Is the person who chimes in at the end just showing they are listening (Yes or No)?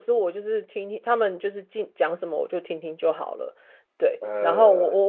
Yes